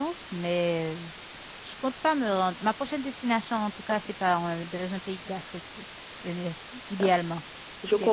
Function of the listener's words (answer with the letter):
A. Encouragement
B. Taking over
B